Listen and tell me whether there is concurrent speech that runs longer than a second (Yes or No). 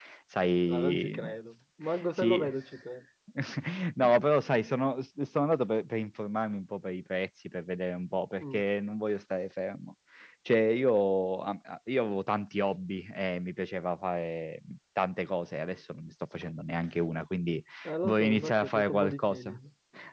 Yes